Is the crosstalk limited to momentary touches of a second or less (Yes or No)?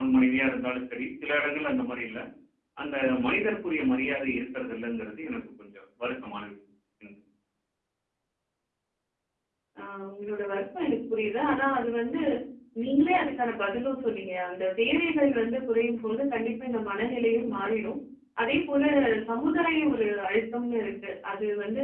Yes